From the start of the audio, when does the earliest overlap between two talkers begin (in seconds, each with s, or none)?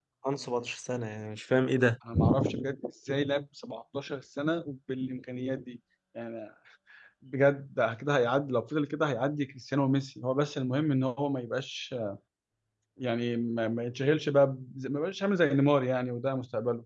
none